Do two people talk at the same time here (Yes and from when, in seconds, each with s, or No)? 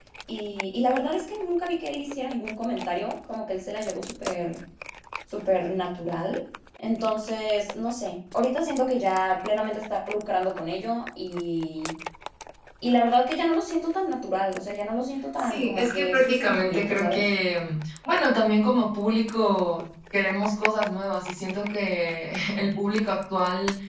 Yes, from 15.4 s